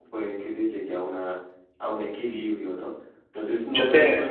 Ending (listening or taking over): listening